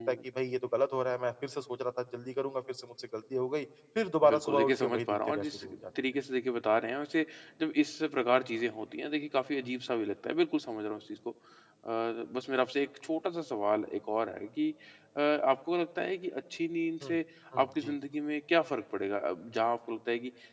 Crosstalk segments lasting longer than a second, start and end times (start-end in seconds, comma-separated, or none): 4.2-5.6